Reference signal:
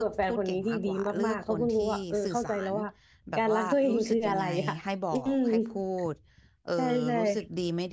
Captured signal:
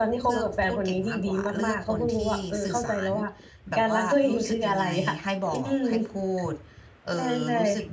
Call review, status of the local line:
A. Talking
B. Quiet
B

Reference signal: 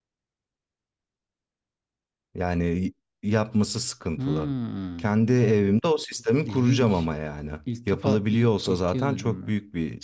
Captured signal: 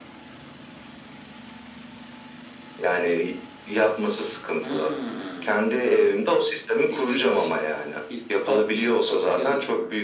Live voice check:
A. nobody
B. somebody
A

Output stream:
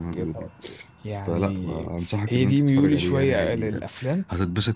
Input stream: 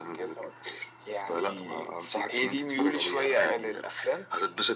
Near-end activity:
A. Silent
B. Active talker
A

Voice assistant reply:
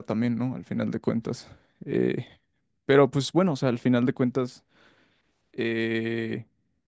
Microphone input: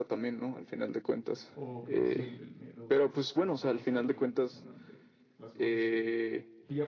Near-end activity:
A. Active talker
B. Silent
A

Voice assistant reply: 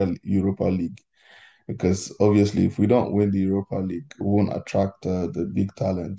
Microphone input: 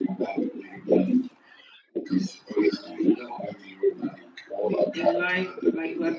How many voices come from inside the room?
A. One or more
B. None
A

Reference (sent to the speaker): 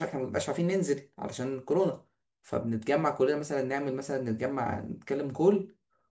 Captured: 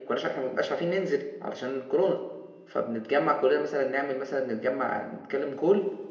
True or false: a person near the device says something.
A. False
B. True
A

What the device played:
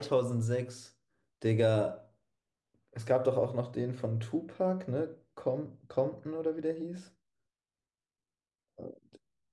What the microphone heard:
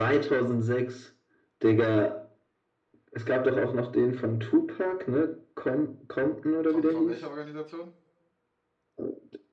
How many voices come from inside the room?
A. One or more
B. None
A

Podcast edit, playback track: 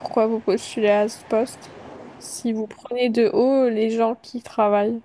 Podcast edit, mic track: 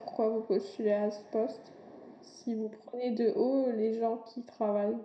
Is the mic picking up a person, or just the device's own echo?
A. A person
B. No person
B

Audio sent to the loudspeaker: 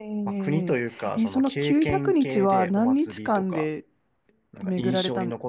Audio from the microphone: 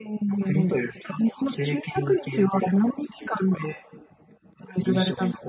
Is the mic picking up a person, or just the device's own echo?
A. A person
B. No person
B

